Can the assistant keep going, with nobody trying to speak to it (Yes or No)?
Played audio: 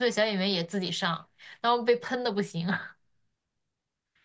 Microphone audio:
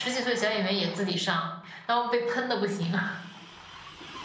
Yes